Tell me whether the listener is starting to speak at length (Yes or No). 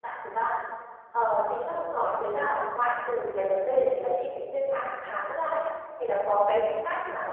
No